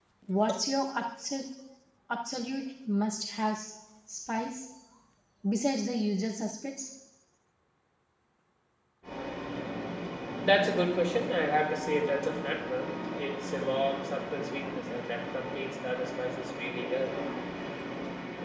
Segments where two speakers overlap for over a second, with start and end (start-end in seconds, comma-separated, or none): none